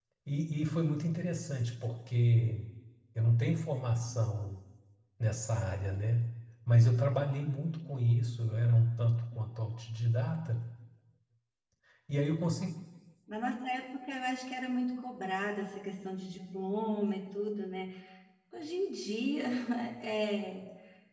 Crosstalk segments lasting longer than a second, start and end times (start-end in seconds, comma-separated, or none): none